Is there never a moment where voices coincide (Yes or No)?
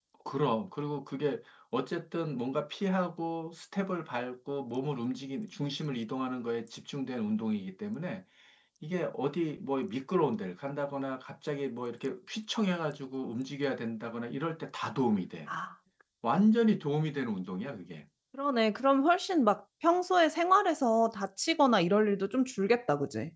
Yes